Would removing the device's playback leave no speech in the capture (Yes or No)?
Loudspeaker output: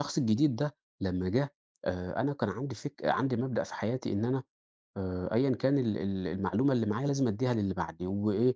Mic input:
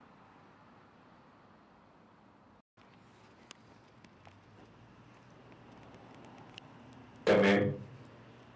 No